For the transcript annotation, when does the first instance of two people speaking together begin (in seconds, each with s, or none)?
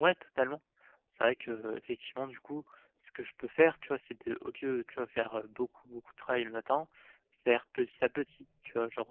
none